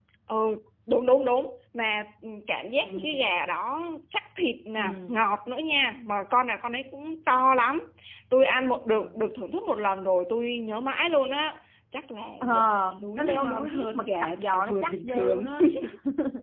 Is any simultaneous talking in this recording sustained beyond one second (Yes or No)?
Yes